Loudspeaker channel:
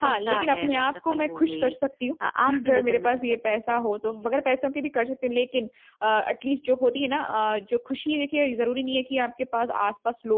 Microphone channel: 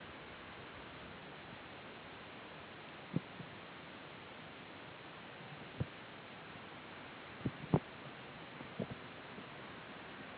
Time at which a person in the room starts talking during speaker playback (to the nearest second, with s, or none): none